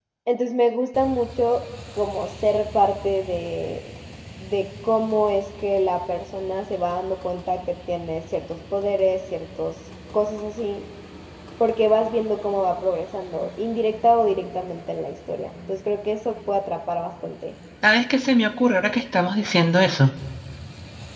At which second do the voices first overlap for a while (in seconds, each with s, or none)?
none